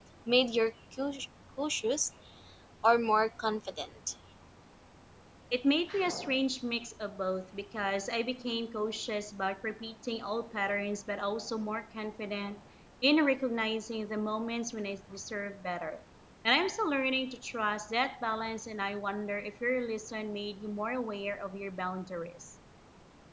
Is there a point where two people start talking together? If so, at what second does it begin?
none

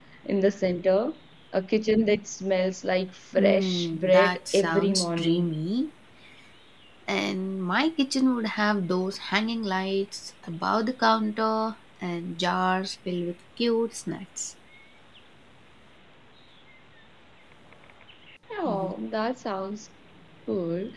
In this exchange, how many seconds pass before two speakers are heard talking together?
3.4 s

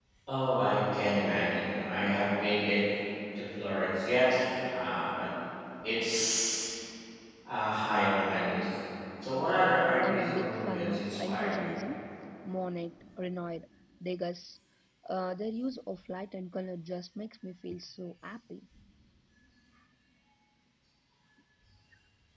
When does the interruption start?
10.0 s

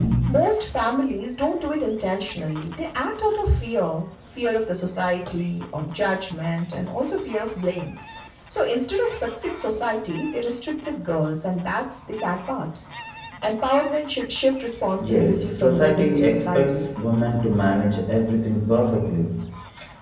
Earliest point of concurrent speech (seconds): 15.0 s

